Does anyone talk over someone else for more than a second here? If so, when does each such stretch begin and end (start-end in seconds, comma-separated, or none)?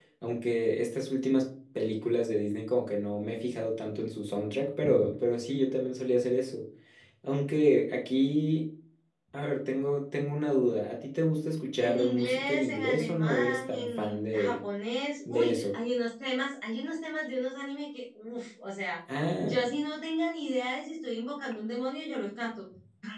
11.8-14.6